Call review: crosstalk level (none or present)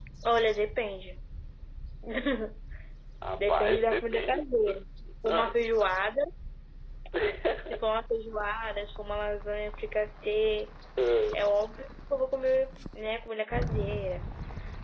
present